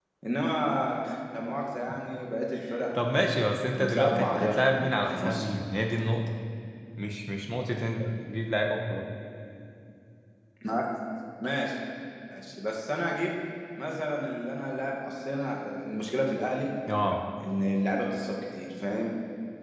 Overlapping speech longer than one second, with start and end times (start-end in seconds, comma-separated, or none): 3.2-5.5